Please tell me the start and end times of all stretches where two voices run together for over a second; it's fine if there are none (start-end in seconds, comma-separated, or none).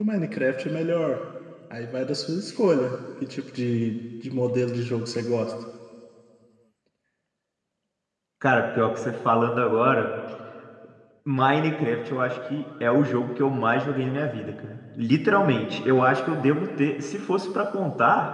none